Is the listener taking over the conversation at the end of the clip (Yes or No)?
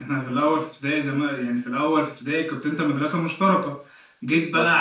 No